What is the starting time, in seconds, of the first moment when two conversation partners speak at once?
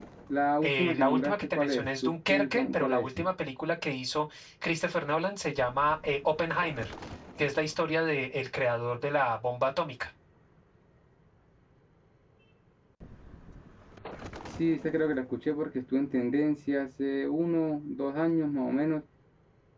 0.6 s

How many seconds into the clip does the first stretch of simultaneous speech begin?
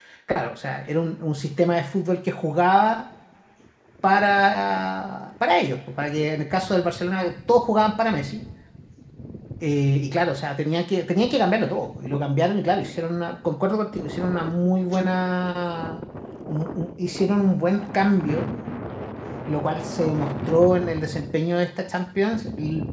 none

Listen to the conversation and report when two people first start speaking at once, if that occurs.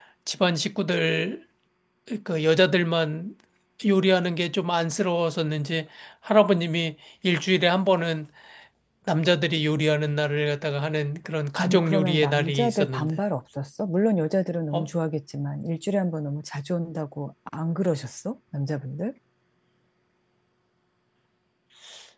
11.6 s

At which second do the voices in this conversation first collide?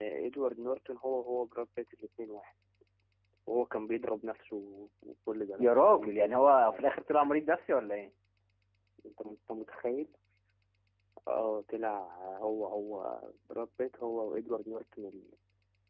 5.6 s

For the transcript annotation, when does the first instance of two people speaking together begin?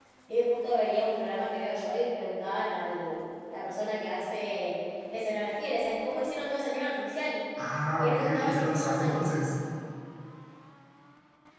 8.0 s

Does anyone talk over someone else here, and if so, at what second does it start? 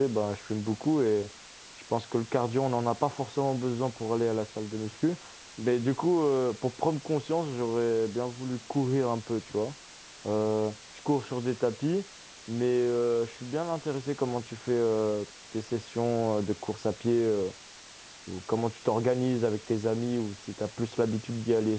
none

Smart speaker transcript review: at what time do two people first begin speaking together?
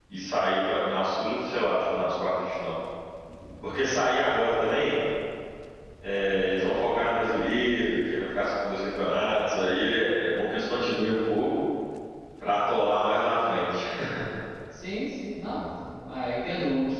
none

